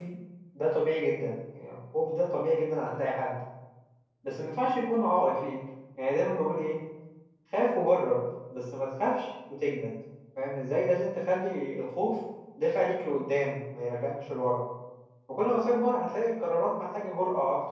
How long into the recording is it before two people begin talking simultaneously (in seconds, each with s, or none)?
none